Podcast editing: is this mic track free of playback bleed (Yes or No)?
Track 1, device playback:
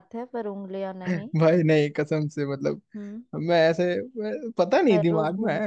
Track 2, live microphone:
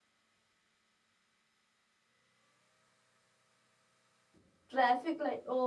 Yes